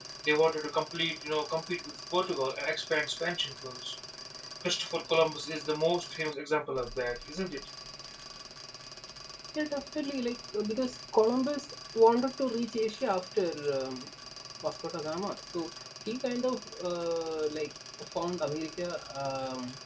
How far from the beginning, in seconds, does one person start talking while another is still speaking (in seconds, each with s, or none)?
none